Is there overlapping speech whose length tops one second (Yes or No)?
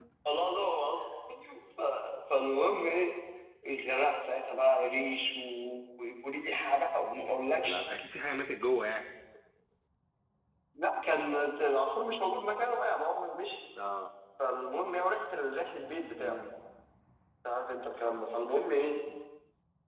No